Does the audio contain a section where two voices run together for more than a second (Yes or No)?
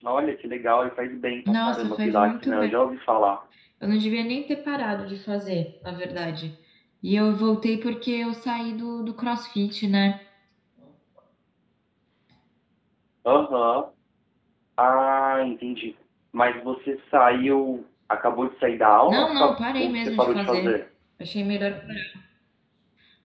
Yes